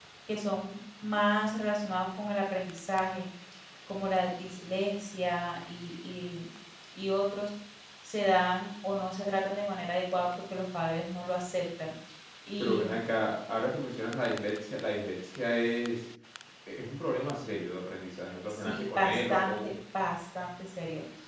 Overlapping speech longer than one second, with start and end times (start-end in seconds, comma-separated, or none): 18.5-19.8